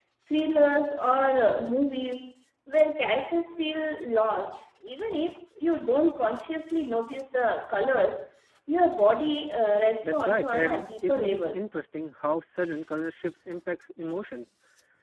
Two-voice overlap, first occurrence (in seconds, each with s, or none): 10.0 s